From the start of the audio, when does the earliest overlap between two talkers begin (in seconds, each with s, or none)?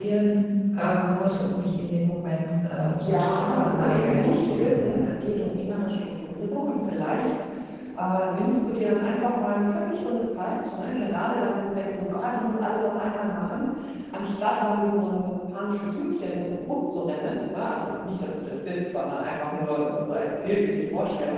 3.0 s